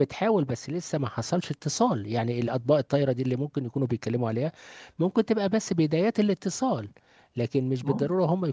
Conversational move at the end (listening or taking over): listening